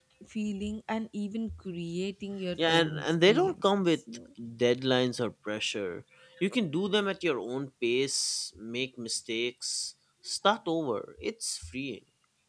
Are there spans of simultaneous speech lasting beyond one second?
Yes, from 2.6 s

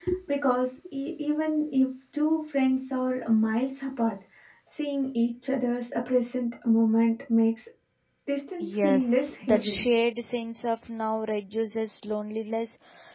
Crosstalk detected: Yes, from 8.6 s

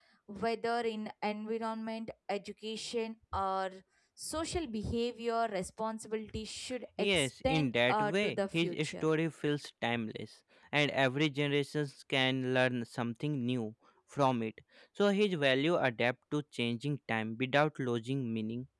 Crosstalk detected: Yes, from 7.0 s

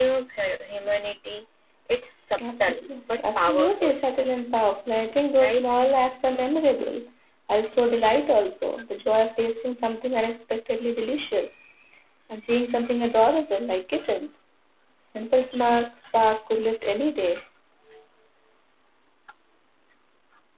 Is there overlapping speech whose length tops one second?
Yes, from 2.4 s

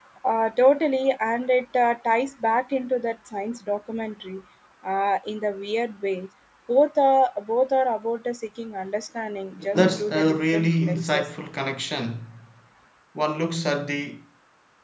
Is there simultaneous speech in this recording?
Yes, from 9.7 s

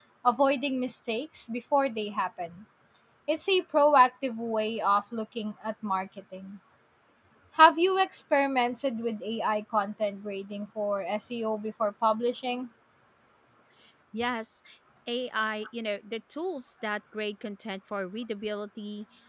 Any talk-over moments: No

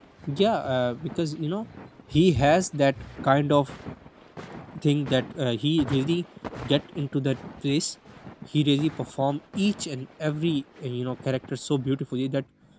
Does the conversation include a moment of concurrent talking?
No

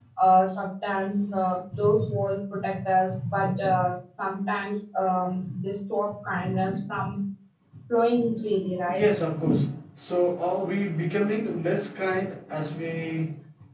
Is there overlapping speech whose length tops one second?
No

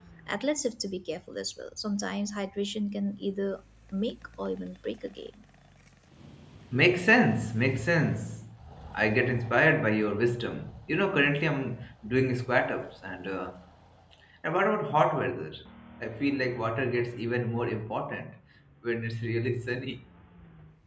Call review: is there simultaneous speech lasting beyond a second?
No

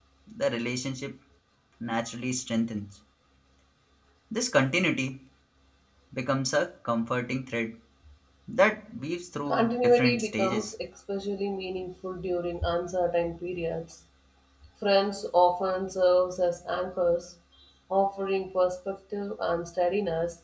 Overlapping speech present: Yes, from 9.5 s

